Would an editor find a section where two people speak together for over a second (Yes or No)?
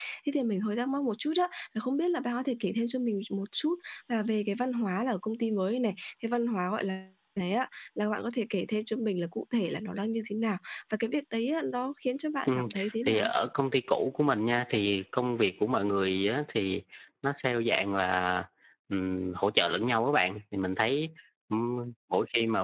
No